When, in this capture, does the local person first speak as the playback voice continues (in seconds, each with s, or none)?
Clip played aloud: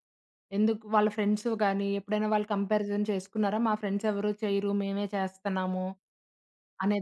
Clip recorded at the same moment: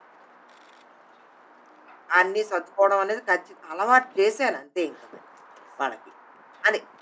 2.2 s